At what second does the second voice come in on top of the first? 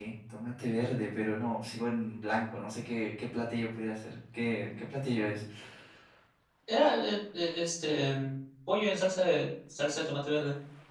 none

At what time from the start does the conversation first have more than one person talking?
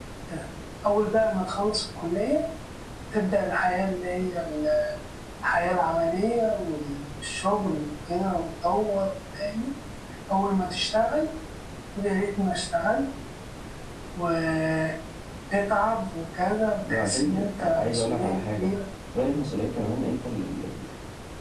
16.9 s

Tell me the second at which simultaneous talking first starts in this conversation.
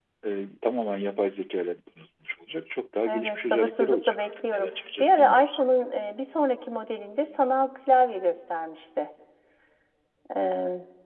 3.0 s

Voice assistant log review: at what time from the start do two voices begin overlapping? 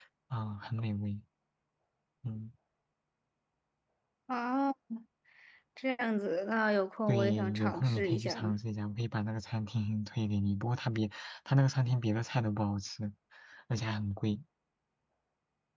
7.1 s

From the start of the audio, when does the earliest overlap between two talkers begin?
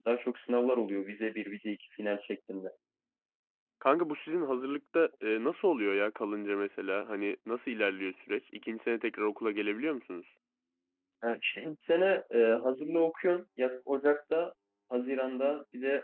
none

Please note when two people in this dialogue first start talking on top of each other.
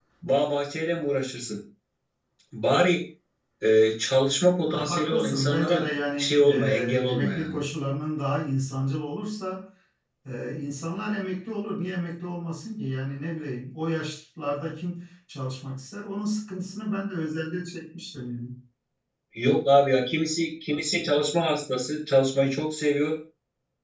4.6 s

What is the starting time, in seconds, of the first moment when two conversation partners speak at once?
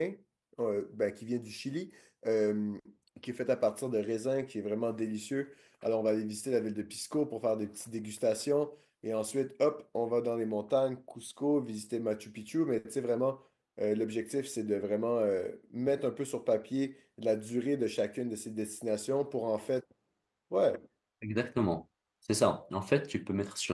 none

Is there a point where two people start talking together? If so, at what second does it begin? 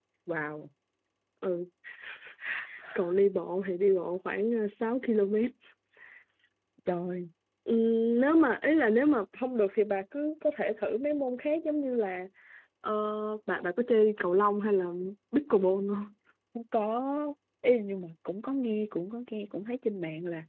none

